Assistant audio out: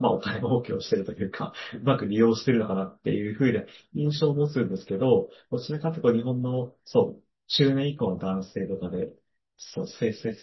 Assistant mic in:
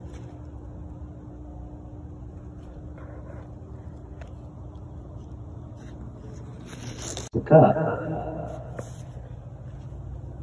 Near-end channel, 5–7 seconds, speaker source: neither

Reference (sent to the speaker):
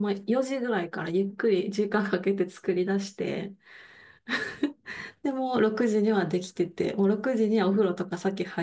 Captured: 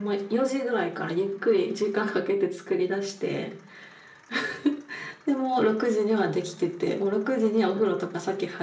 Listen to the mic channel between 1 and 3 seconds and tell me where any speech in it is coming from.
echo only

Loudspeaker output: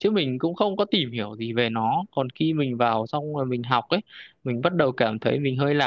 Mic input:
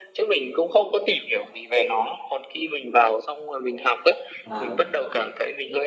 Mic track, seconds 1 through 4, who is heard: echo only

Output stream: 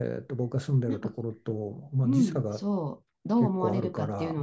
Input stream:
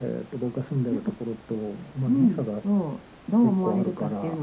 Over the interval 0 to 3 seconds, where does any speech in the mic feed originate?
echo only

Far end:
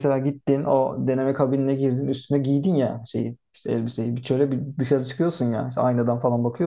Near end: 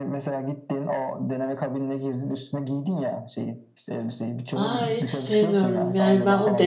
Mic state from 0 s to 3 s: echo only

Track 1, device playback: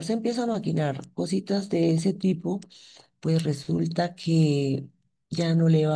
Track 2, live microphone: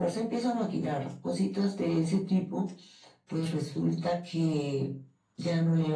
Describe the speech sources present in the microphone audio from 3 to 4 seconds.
echo only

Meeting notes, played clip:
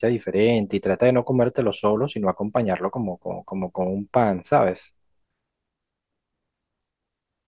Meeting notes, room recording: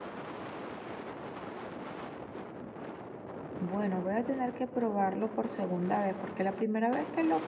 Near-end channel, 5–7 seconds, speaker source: user only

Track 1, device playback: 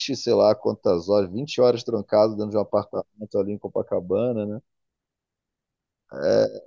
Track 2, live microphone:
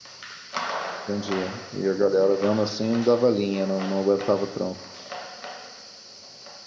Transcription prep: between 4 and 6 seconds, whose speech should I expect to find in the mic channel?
user only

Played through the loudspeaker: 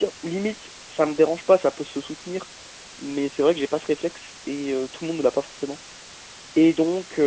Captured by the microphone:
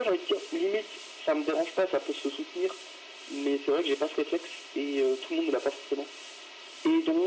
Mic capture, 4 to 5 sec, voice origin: echo only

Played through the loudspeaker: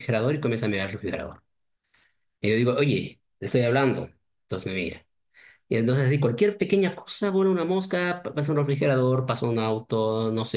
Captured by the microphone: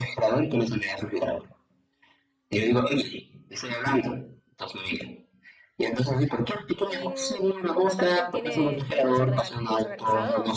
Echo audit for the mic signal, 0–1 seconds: echo only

